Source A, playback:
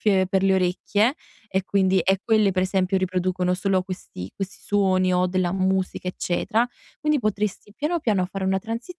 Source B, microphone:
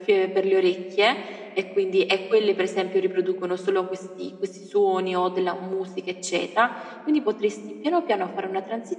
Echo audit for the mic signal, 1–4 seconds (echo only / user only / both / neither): echo only